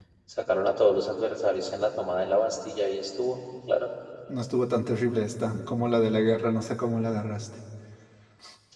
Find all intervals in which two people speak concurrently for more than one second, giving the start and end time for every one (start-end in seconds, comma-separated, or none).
none